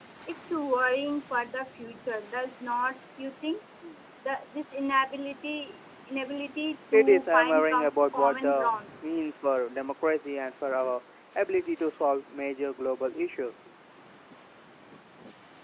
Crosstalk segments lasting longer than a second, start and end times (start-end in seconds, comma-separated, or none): 6.9-8.7